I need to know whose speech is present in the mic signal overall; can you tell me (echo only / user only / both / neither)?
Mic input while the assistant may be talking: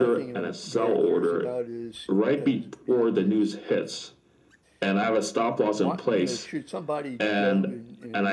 both